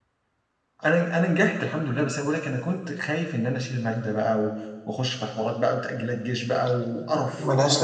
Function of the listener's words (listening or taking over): taking over